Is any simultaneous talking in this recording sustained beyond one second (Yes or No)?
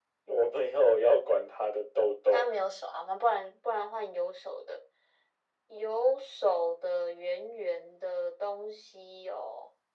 No